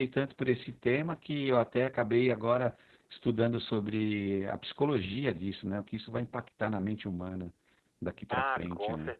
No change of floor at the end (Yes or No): No